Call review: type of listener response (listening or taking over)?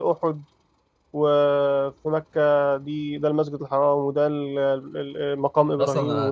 taking over